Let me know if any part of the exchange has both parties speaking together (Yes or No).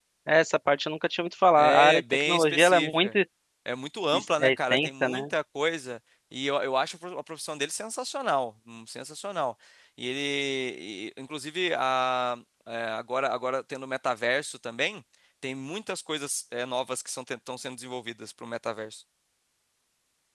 Yes